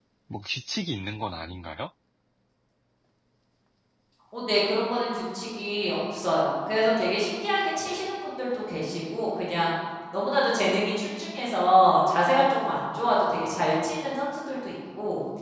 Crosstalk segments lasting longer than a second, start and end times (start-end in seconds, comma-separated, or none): none